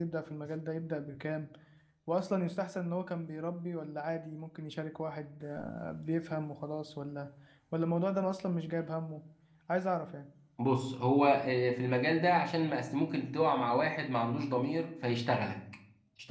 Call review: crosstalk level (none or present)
none